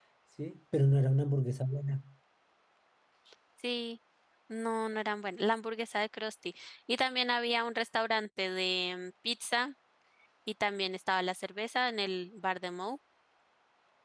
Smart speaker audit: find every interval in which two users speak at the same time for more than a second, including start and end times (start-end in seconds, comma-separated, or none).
none